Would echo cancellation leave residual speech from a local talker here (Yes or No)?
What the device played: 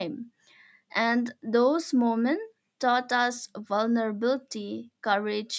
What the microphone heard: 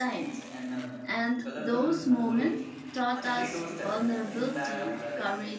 Yes